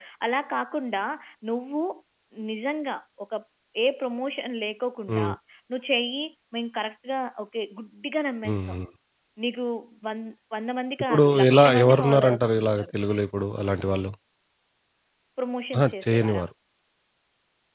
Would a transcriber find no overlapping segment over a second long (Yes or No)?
No